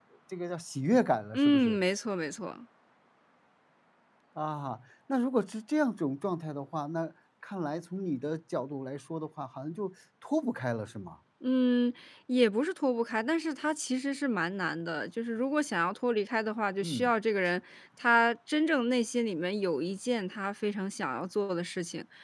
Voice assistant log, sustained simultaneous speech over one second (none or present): none